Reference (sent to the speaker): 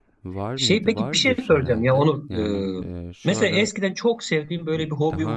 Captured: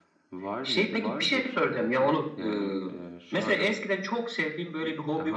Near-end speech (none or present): none